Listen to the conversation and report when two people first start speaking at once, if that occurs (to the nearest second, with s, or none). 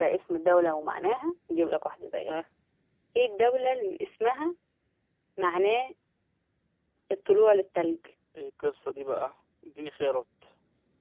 none